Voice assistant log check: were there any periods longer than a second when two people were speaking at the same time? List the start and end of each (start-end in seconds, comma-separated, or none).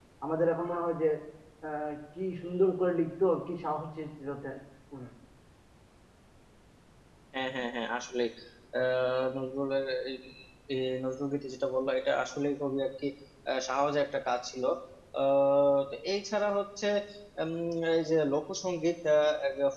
none